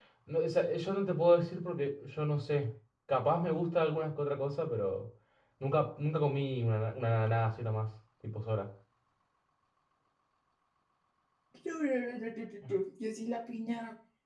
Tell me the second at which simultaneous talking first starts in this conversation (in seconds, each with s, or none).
none